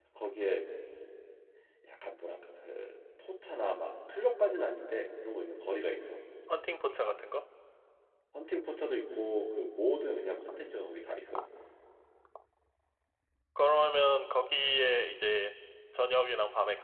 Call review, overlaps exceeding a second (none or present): none